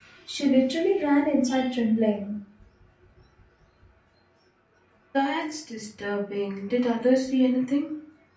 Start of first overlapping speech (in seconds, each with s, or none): none